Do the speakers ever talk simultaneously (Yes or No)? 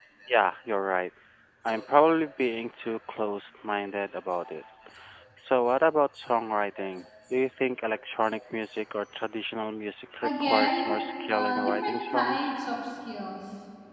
Yes